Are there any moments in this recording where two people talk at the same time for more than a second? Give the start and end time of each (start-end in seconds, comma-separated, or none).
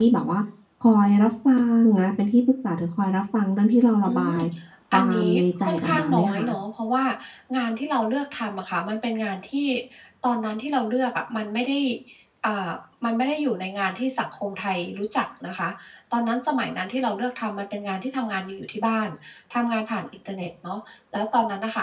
4.9-6.5